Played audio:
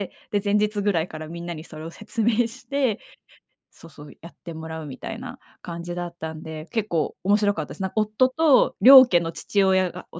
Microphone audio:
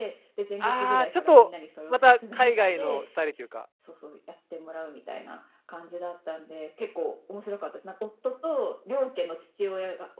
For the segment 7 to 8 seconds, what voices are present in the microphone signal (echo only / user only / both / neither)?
echo only